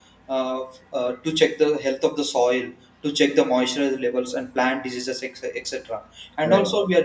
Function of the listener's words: listening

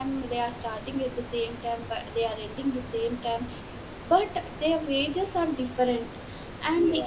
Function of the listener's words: listening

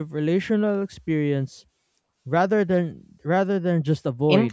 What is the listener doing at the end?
taking over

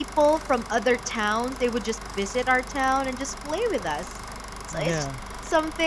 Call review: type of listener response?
listening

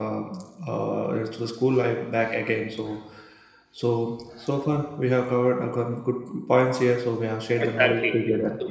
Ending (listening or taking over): taking over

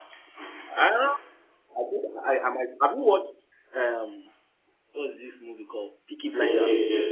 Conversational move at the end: taking over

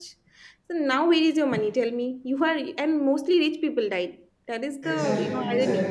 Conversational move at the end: taking over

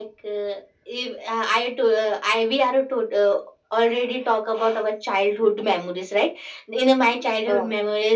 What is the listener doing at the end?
listening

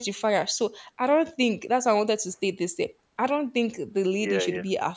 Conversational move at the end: listening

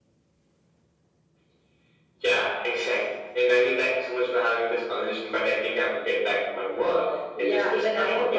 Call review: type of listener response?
taking over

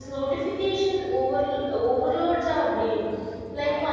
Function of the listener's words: listening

